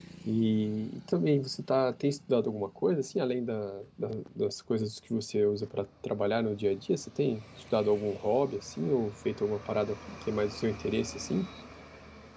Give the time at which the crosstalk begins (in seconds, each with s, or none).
none